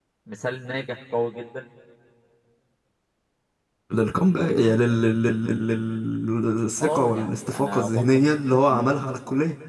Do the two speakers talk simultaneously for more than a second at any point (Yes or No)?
Yes